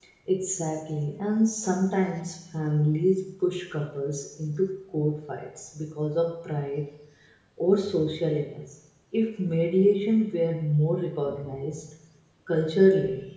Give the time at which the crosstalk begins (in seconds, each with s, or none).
none